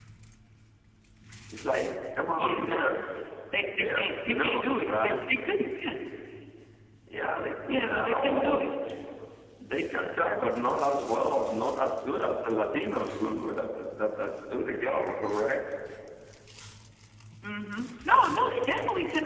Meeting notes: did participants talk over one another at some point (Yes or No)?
Yes